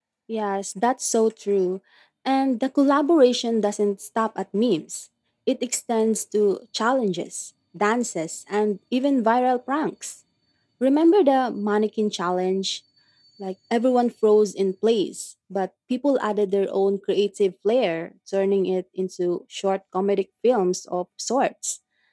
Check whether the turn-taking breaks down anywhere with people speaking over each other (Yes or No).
No